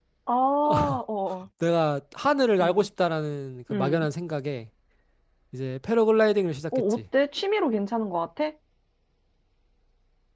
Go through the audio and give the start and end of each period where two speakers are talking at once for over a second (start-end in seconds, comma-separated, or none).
none